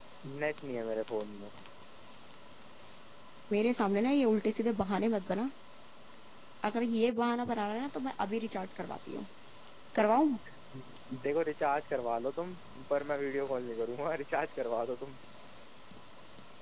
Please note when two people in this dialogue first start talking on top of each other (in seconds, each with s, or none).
none